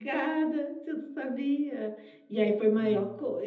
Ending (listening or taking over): listening